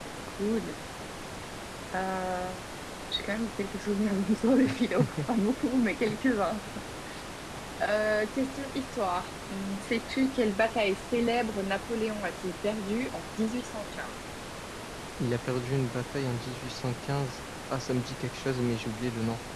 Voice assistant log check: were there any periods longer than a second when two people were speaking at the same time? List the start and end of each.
none

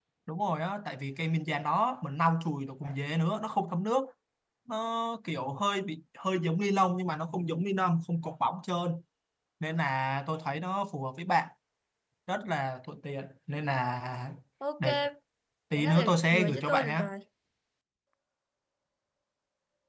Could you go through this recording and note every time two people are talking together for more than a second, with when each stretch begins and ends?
15.8-17.0

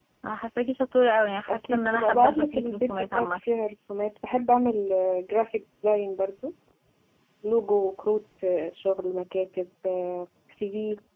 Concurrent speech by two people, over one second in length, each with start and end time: 1.5-3.4

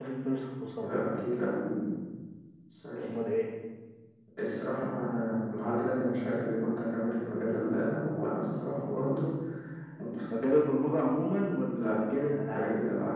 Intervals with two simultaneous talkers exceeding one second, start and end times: none

